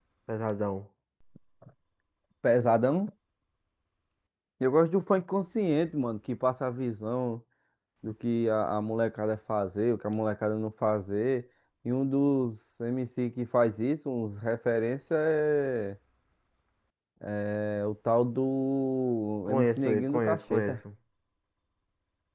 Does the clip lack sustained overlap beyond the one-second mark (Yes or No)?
No